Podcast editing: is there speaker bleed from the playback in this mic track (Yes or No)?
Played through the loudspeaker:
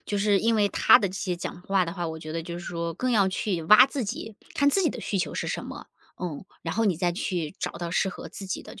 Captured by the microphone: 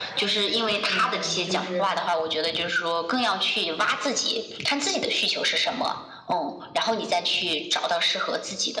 Yes